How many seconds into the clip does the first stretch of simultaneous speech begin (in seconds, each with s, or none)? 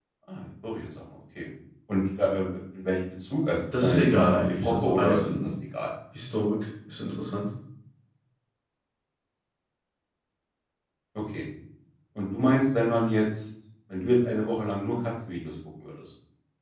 3.7 s